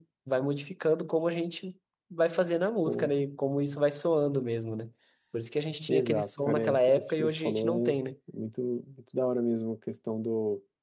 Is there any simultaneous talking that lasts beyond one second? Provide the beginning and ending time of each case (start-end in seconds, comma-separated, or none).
5.9-8.0